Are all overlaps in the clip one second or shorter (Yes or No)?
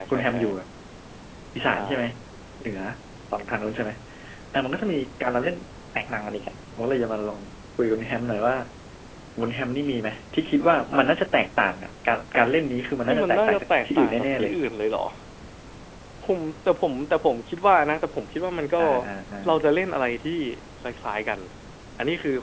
No